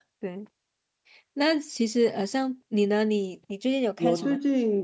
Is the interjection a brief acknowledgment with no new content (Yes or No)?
No